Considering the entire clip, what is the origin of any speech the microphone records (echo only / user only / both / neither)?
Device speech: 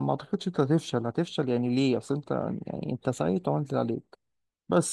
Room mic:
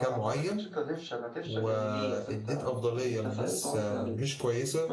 both